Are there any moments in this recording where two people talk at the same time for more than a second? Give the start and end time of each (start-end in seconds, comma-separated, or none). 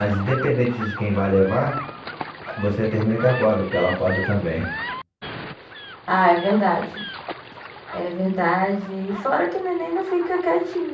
none